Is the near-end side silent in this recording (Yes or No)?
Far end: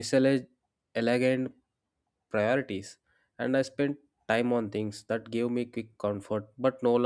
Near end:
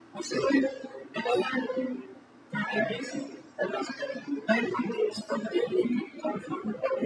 Yes